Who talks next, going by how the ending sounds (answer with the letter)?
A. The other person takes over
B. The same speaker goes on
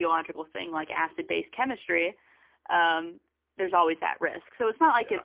B